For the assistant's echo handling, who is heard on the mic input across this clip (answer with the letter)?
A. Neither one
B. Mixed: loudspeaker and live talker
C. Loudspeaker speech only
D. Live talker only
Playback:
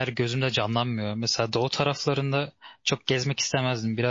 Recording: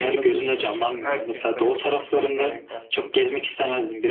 B